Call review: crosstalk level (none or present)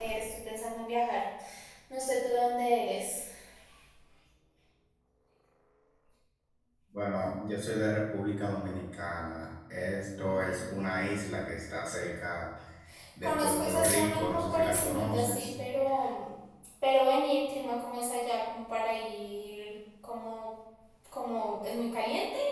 present